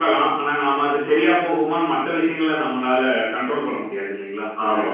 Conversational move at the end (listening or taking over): taking over